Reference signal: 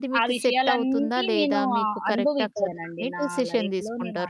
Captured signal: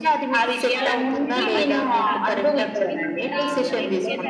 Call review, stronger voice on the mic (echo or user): echo